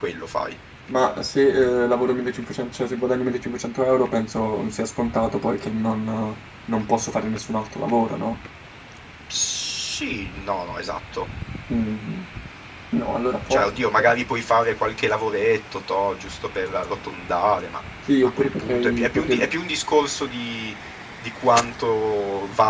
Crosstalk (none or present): present